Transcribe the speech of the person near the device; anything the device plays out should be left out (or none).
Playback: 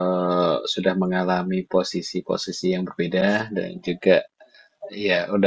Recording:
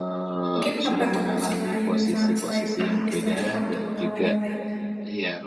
mungkin apa tuh selain misal selain administrasi apa tuh pengalaman yang lainnya